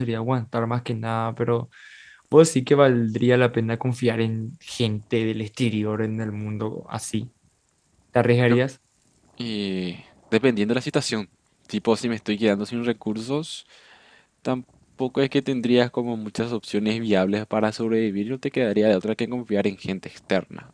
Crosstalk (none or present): none